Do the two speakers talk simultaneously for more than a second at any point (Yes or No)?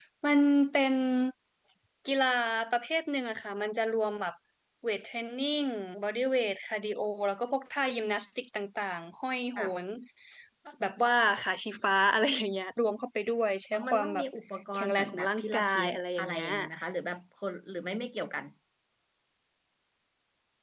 Yes